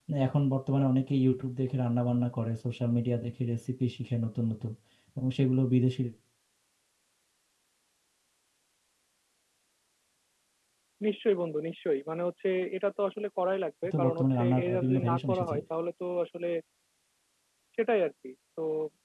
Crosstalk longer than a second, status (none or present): present